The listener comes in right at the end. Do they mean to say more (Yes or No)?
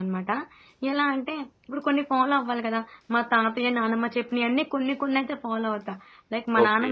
Yes